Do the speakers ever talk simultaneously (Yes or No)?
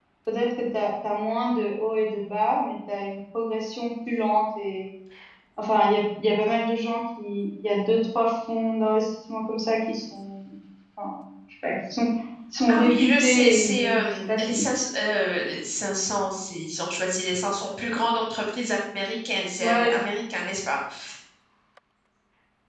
Yes